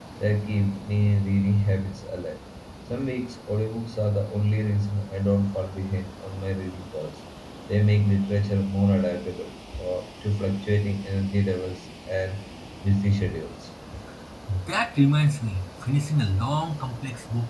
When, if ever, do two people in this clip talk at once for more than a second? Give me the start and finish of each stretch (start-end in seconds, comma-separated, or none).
none